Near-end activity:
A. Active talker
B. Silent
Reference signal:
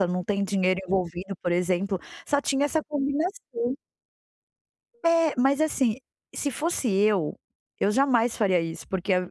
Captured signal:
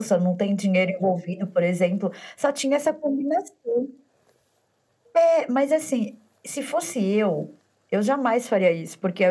B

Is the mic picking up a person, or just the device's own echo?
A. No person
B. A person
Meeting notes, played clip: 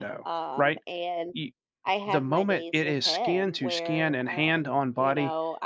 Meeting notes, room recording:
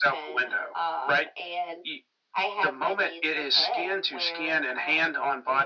A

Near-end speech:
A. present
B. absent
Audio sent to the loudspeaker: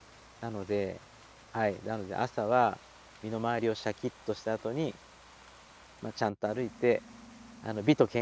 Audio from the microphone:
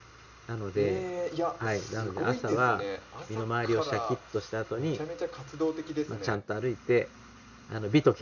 A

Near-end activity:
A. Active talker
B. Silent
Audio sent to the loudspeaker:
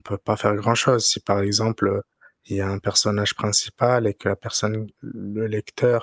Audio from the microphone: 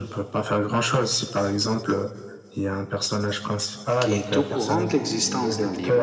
A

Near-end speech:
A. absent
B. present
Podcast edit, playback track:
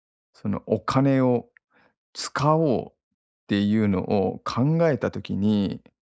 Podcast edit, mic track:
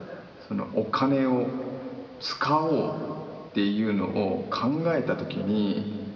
A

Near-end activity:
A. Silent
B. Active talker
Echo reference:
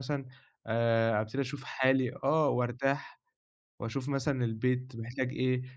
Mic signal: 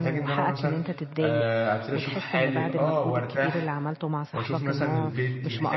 B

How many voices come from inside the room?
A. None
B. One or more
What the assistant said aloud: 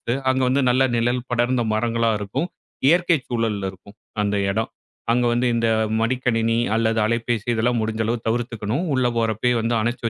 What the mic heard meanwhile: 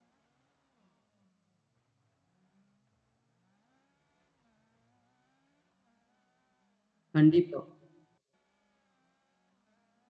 B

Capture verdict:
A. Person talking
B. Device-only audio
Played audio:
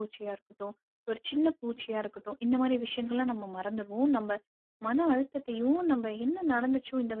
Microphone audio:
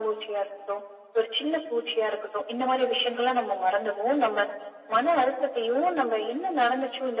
B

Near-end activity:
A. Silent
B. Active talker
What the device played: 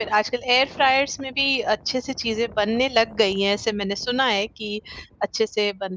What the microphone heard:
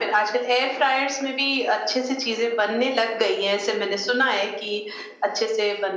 A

